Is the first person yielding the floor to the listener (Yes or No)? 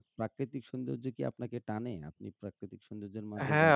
Yes